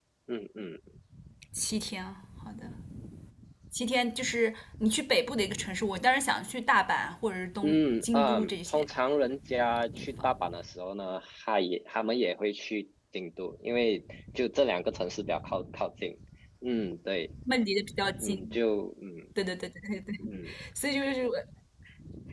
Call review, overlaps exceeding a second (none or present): present